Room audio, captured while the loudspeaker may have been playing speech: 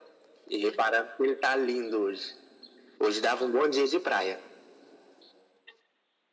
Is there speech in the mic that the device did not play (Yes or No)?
No